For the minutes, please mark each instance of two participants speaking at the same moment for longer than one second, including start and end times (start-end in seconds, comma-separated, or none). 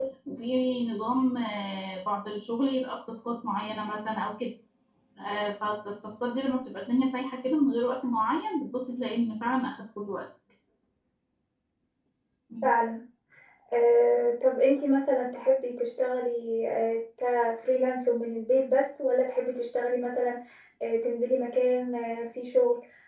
none